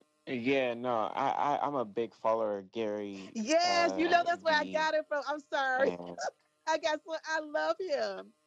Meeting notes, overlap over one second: present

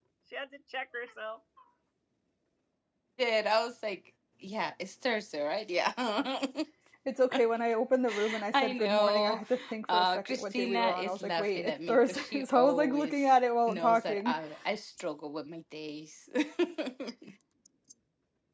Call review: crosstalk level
present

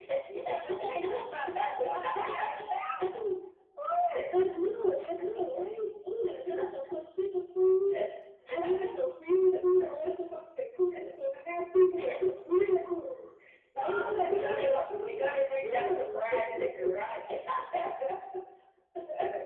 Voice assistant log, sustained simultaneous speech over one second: present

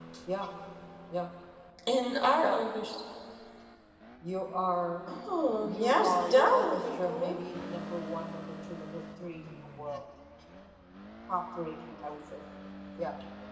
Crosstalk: present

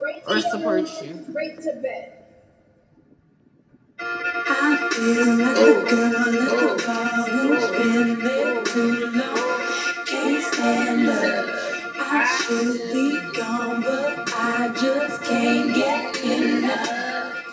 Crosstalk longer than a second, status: present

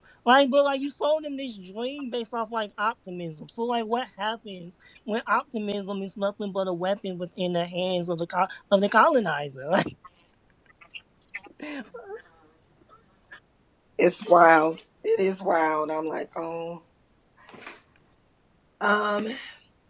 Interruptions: none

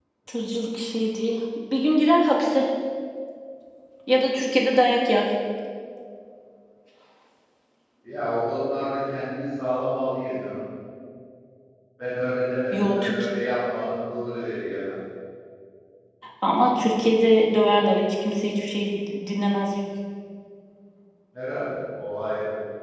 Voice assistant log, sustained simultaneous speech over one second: none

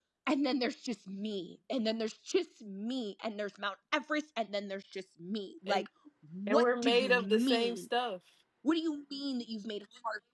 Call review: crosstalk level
present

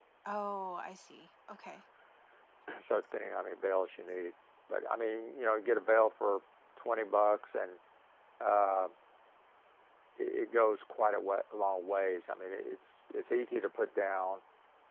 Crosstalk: none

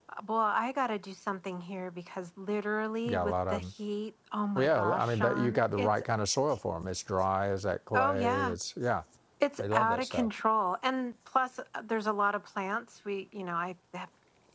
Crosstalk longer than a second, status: present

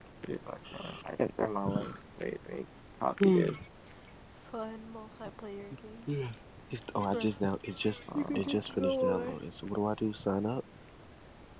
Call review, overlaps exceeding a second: present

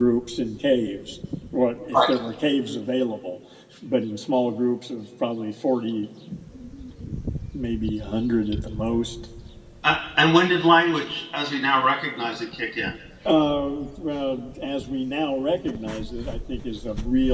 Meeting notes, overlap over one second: none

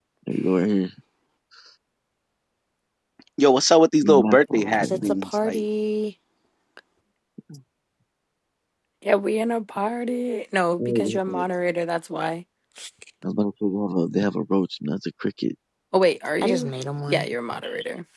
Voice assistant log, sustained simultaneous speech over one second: present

